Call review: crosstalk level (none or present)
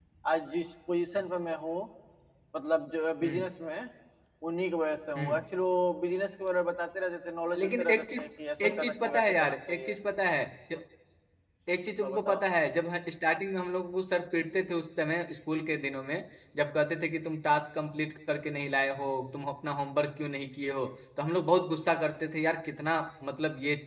present